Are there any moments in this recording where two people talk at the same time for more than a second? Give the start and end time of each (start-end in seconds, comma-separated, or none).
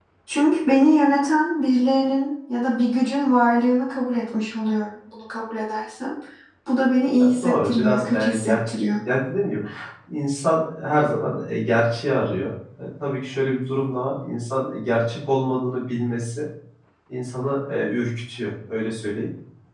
7.2-8.8